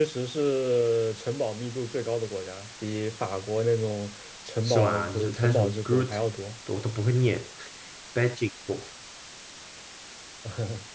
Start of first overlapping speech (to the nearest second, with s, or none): 5 s